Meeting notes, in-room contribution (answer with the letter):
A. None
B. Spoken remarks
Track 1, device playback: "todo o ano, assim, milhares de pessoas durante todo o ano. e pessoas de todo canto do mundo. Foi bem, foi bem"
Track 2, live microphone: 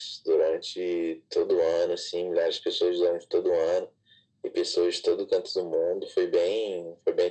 A